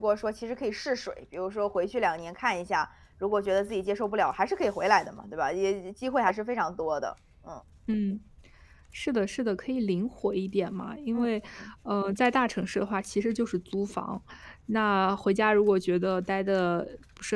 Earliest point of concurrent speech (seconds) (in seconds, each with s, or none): none